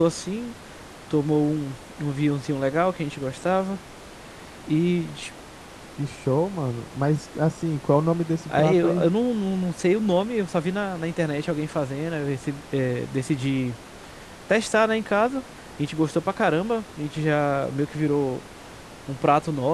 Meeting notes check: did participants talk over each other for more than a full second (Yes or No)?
No